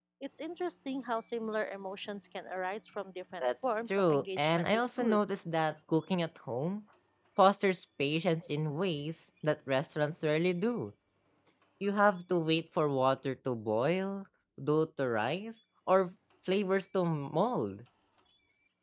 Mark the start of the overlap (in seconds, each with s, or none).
3.4 s